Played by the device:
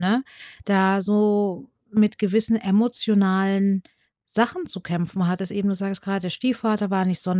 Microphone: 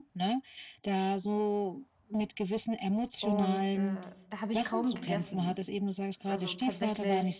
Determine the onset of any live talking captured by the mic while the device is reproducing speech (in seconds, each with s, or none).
3.2 s